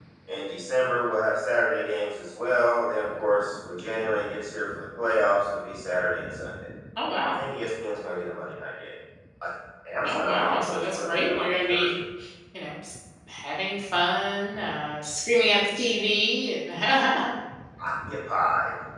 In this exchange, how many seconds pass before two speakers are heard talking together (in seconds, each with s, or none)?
10.0 s